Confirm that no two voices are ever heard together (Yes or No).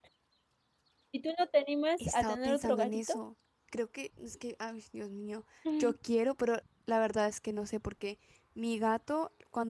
No